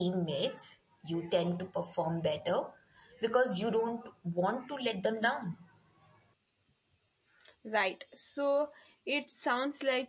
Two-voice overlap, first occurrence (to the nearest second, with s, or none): none